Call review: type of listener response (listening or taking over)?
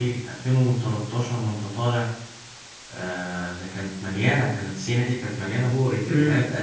listening